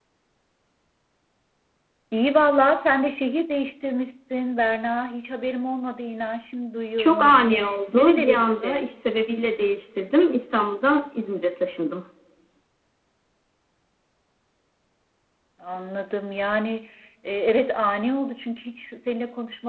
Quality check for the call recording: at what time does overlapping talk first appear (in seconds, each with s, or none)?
7.0 s